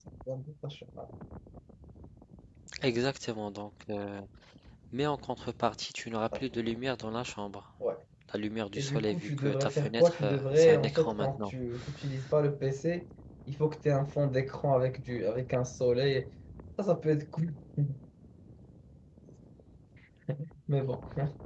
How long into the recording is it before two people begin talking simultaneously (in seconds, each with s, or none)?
8.8 s